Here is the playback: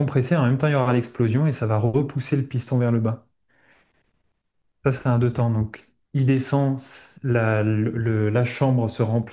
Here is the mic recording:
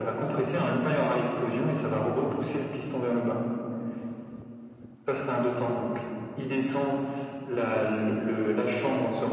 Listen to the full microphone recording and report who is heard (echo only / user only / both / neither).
echo only